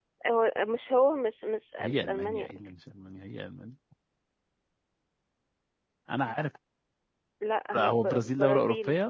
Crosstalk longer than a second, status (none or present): present